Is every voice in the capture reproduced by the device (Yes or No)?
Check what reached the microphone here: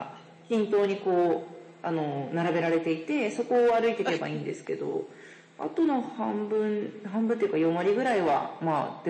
Yes